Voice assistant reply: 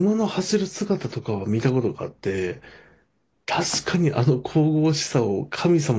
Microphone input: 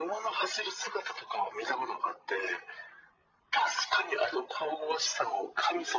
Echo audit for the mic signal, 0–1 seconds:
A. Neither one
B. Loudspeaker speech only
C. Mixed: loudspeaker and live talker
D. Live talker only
B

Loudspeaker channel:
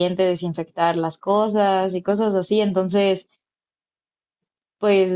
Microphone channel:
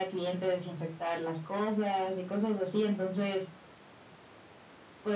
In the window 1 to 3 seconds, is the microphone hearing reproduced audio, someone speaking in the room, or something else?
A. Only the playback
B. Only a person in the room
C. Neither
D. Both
A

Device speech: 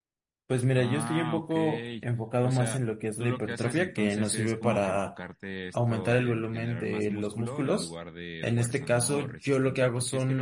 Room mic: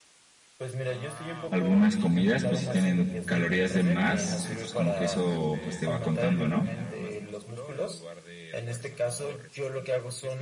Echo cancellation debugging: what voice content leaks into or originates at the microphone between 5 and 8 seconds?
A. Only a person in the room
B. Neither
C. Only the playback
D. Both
D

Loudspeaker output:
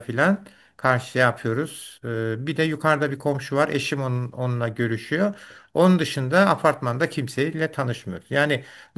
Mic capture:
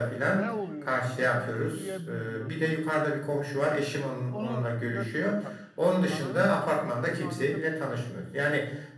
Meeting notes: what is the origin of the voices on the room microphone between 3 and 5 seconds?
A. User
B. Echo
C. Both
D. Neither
C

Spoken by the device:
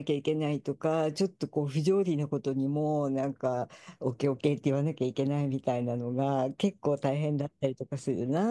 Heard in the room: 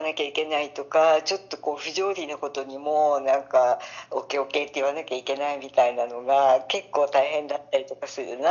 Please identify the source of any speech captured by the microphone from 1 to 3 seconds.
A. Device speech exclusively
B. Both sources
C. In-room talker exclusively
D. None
A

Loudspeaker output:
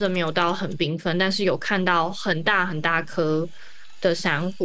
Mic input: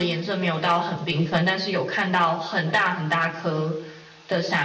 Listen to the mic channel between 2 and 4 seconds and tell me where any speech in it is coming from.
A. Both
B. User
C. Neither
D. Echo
D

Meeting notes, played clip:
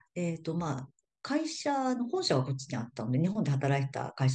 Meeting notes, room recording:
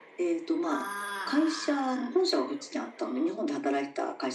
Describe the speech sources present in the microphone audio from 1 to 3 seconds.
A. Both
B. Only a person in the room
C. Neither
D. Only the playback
A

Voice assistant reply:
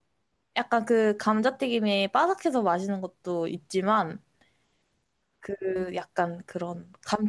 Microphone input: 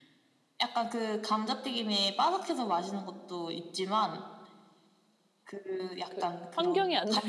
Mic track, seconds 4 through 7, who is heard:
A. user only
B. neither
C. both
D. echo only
C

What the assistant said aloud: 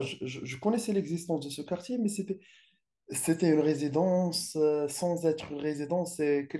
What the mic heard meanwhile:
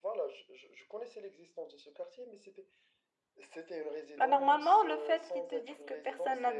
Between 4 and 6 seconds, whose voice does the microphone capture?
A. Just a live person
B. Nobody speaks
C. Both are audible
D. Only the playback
C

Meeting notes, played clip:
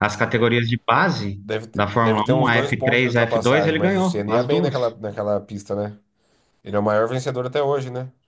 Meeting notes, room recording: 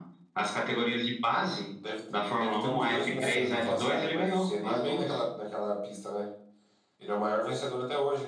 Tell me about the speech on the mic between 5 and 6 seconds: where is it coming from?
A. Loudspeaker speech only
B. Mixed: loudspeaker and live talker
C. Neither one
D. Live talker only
A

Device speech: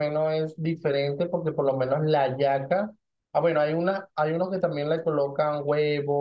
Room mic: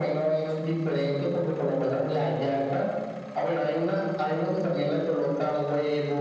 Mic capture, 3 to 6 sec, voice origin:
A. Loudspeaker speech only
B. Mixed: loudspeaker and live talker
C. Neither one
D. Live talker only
A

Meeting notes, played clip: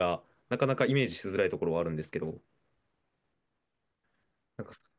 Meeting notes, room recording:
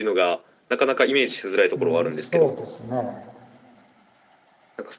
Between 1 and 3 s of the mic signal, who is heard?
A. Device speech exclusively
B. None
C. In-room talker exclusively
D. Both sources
D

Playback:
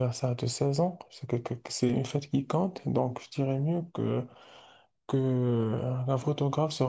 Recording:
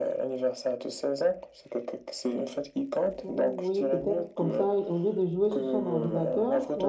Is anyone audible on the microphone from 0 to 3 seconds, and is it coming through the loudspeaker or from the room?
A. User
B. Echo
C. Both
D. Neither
B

